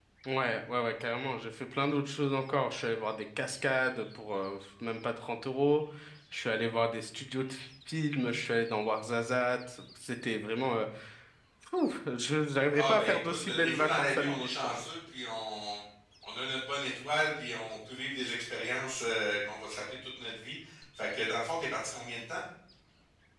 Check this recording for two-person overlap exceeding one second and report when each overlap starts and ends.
12.7-14.7

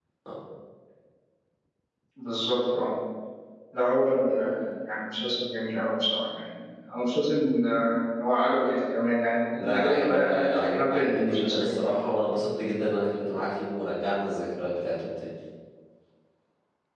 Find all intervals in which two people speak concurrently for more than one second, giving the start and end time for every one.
9.6-11.8

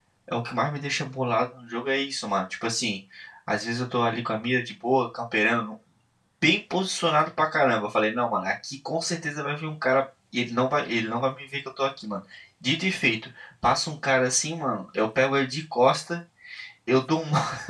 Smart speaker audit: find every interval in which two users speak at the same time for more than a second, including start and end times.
none

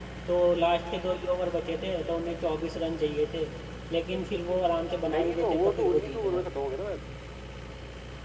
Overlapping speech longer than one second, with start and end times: 5.1-6.4

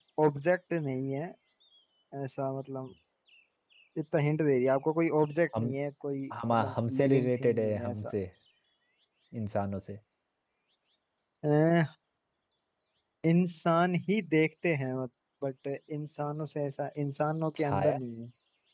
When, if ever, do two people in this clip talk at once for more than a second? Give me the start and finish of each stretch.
6.5-8.0

